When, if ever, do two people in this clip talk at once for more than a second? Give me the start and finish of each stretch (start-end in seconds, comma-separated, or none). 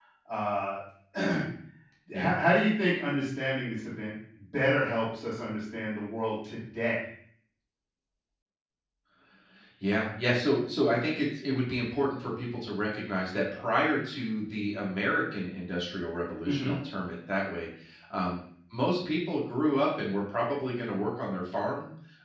none